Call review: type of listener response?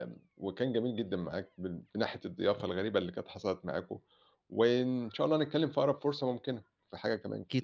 taking over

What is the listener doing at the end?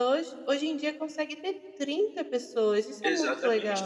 taking over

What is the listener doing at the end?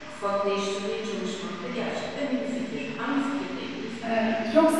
taking over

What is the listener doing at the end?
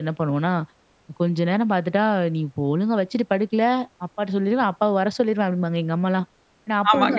listening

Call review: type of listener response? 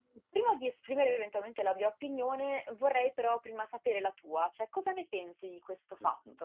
taking over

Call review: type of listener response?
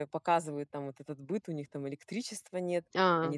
listening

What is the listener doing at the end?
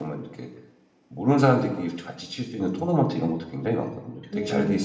taking over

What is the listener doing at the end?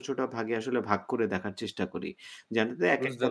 listening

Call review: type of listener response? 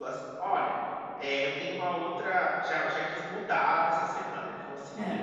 listening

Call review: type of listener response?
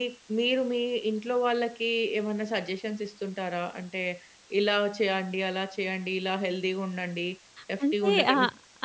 taking over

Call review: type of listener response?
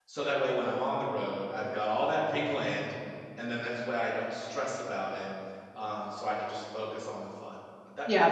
taking over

